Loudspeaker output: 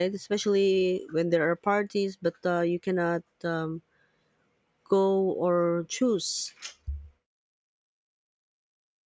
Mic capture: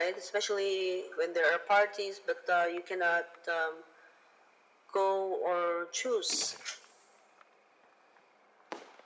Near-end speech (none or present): none